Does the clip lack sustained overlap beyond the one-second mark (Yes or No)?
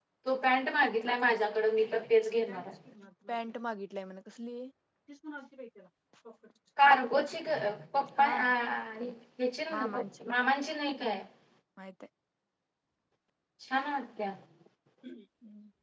Yes